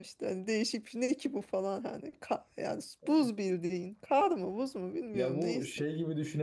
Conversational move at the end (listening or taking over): taking over